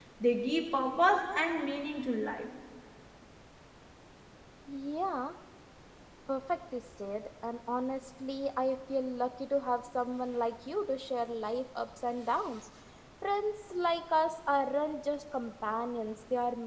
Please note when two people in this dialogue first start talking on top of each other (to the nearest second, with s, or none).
none